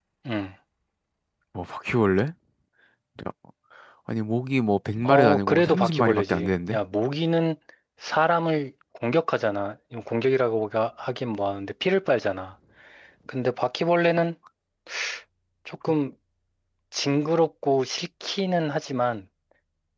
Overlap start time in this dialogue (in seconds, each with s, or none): 5.0 s